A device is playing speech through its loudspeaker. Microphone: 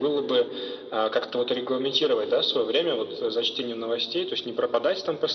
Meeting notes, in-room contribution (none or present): none